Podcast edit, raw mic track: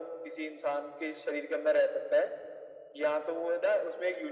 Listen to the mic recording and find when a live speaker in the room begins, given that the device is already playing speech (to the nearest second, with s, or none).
none